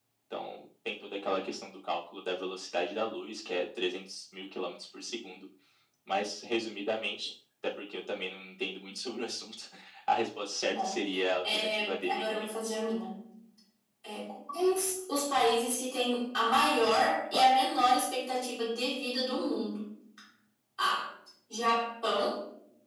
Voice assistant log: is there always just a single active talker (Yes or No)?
No